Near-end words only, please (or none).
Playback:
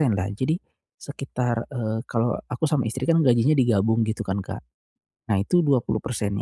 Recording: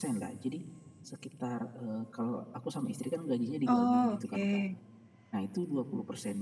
Oh, oke.